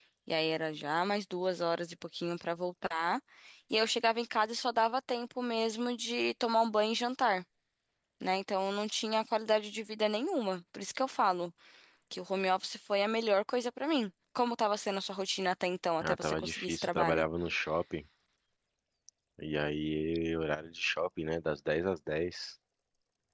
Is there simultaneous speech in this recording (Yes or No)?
Yes